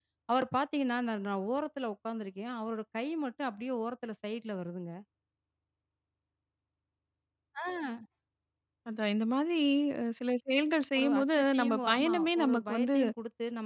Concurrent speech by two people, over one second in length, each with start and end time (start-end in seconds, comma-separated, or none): 11.0-13.0